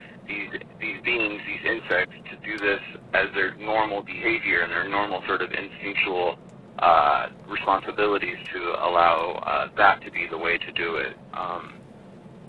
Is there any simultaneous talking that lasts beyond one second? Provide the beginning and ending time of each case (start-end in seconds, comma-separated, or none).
none